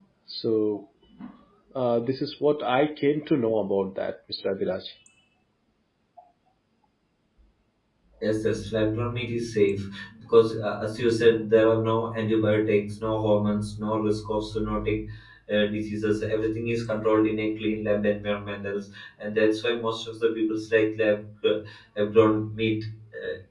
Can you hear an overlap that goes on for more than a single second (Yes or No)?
No